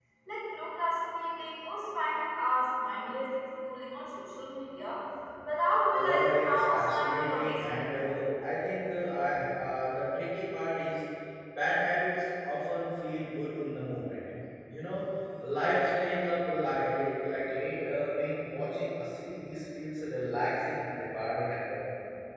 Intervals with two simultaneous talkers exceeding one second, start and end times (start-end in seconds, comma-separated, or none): 5.9-7.8